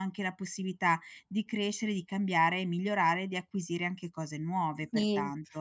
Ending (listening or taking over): taking over